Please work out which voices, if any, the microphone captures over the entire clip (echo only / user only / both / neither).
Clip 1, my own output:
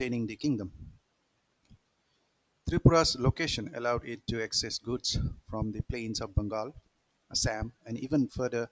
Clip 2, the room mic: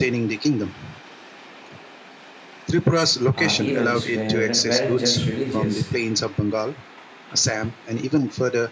both